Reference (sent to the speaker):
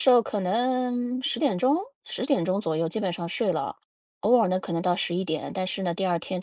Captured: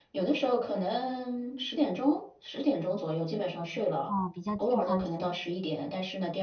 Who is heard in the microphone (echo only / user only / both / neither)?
both